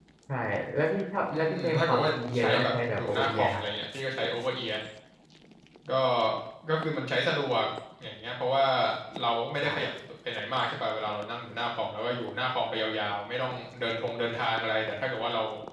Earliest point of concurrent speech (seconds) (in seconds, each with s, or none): 1.3 s